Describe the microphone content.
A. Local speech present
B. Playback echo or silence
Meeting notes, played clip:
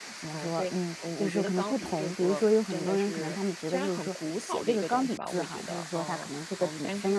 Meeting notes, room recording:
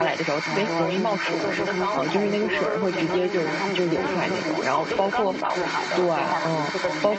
A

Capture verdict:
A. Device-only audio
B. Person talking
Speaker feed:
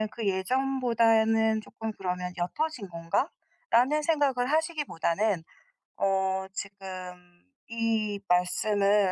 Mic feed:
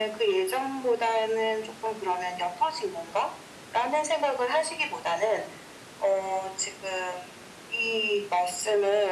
A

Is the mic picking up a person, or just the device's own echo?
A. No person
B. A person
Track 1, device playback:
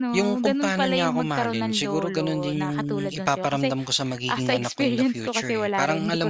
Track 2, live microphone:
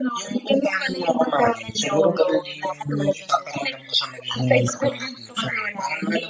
A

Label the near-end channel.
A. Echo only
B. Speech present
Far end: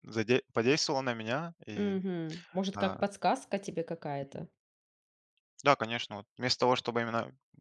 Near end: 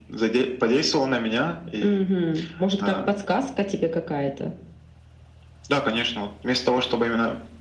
A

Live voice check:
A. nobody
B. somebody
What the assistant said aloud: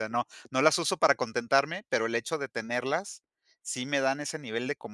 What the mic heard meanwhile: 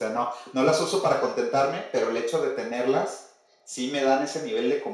A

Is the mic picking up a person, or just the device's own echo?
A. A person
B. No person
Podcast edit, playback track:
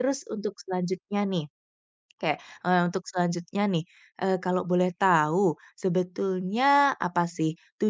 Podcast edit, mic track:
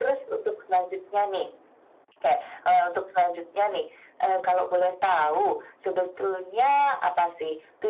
B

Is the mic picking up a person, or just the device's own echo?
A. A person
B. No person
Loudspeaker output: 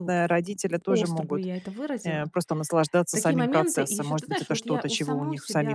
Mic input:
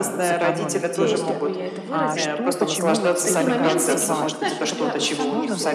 A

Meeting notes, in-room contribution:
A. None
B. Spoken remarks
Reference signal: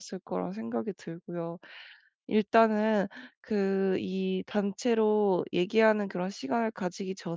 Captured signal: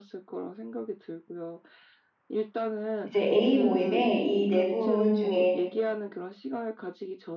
B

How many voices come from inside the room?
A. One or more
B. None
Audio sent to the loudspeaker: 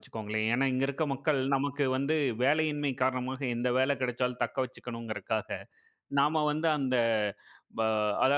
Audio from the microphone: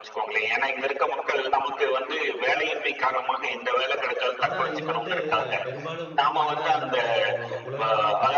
A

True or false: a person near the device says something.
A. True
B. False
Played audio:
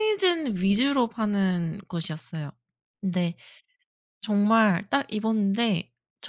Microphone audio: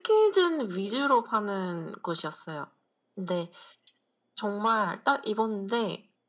B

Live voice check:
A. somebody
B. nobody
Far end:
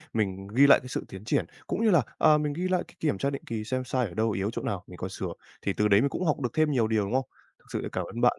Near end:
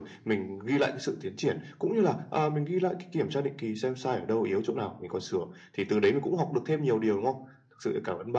B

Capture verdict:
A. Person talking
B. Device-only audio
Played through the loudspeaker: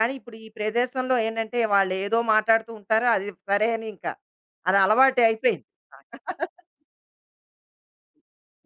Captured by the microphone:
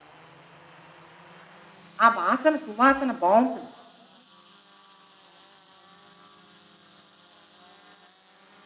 A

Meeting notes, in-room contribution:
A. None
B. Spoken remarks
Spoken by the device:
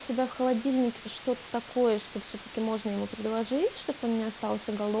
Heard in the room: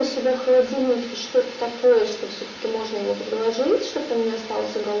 A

